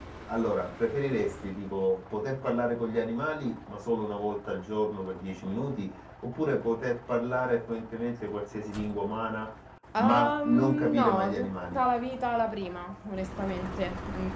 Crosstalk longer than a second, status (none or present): present